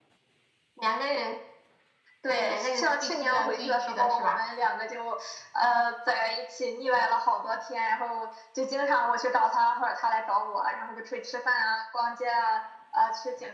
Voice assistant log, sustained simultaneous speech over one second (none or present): present